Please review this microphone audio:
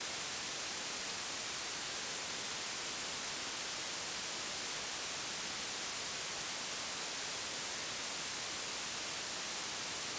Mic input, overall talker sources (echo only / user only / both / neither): neither